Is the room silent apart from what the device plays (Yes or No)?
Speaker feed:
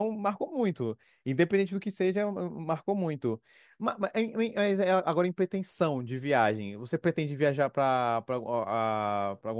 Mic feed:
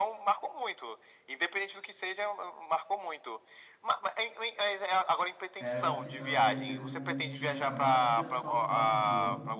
No